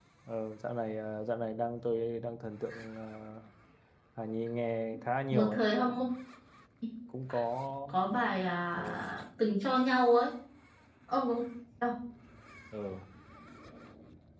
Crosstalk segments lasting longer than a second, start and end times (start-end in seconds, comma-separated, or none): none